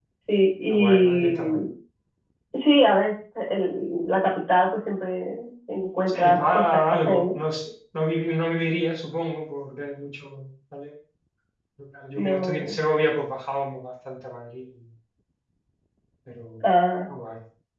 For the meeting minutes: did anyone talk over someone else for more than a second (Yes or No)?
Yes